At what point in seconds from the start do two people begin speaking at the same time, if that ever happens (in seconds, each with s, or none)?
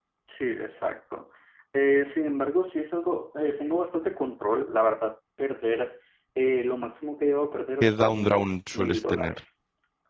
7.8 s